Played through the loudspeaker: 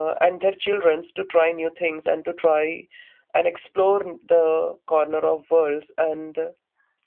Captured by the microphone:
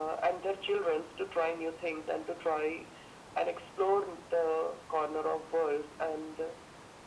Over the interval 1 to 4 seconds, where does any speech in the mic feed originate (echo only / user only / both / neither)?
echo only